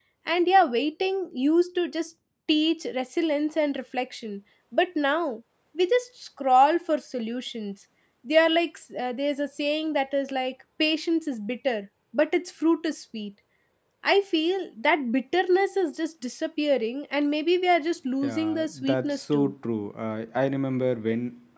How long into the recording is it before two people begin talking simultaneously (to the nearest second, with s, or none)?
18 s